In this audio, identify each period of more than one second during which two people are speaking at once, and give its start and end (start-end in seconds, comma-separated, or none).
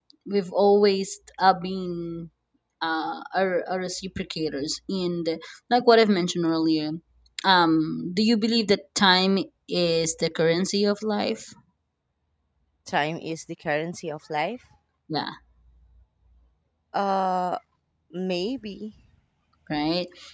none